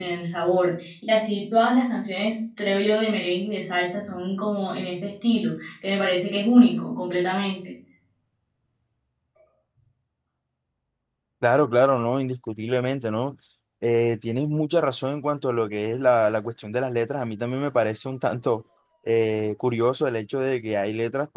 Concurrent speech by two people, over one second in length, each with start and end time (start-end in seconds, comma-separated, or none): none